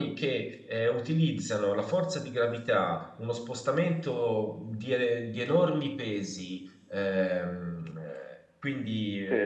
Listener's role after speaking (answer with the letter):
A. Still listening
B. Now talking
A